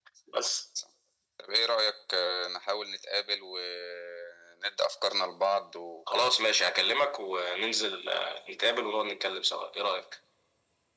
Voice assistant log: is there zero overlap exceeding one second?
Yes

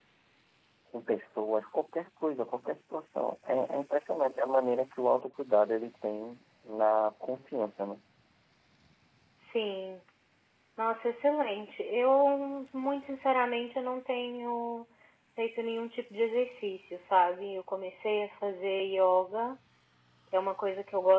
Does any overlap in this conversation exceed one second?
No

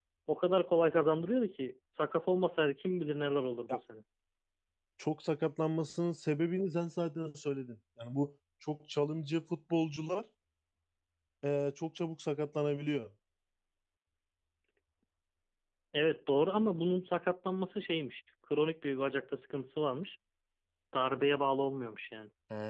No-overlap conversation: Yes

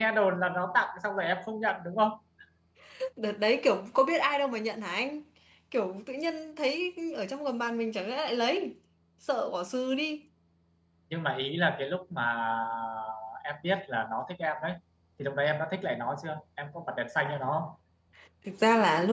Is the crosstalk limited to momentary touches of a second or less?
Yes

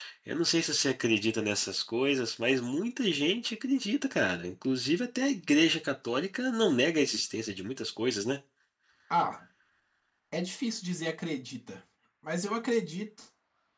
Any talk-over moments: No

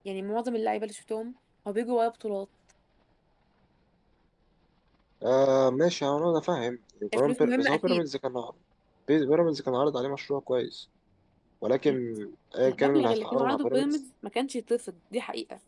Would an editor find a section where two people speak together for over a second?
Yes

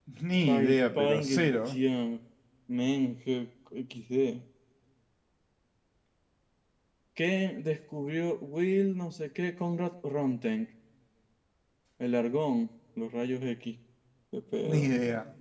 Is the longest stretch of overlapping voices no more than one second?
No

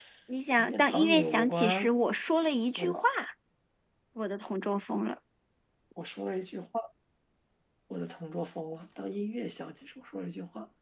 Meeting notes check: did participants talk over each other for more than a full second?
Yes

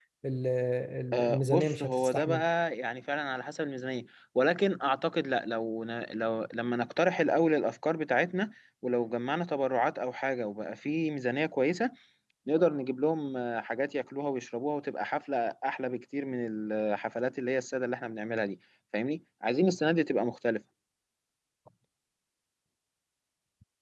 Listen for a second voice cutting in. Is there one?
Yes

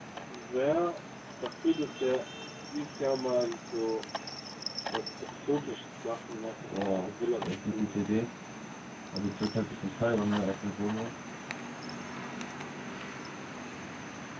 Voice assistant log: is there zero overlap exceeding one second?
No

